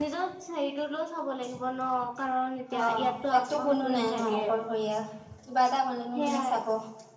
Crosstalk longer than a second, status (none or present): present